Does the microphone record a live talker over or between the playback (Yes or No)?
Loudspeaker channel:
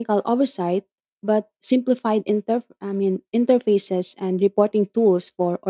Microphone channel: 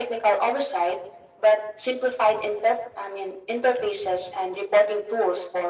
No